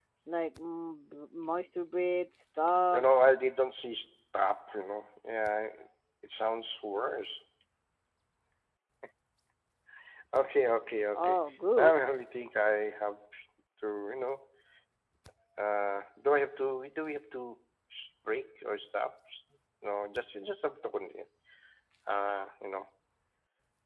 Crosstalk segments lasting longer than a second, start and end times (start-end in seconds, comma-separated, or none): none